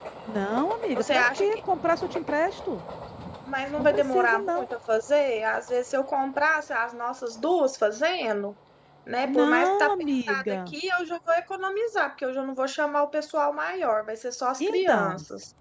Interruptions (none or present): present